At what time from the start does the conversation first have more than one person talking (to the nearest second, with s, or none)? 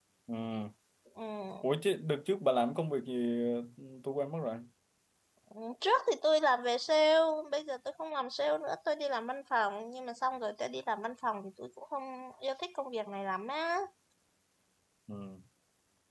none